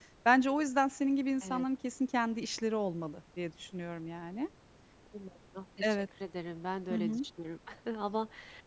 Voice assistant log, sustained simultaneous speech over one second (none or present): none